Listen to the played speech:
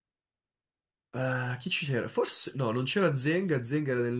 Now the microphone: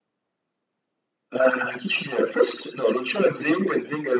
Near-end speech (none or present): none